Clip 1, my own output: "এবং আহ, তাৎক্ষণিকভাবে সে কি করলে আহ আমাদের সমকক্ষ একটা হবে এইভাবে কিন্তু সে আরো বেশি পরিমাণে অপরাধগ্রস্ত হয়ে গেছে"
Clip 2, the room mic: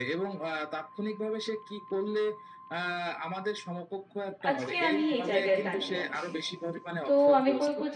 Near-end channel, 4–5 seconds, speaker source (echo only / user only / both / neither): both